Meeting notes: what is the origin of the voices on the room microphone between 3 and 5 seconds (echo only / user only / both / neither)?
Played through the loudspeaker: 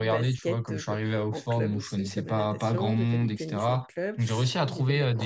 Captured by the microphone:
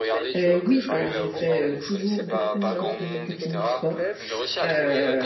both